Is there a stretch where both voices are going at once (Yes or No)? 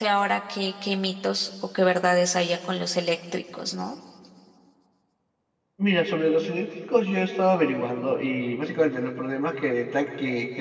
No